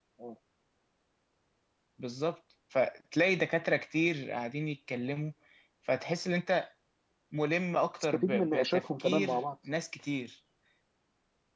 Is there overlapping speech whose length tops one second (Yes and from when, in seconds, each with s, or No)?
Yes, from 8.1 s